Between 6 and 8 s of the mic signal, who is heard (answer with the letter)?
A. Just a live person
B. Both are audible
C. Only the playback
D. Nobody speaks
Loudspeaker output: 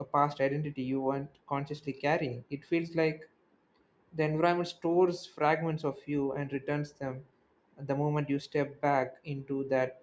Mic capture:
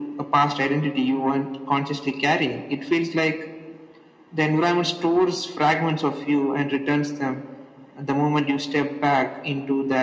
C